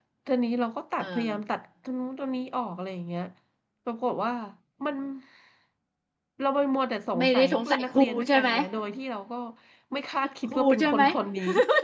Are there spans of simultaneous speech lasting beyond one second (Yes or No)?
Yes